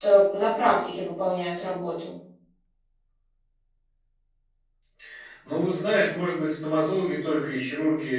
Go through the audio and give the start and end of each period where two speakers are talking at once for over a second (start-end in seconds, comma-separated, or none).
none